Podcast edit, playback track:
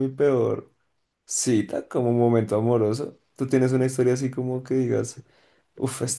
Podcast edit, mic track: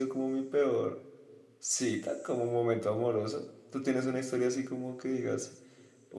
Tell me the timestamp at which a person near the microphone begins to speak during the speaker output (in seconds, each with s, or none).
none